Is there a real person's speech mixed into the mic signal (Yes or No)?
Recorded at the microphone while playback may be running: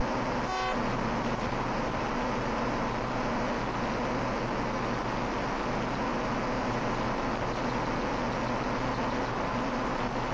No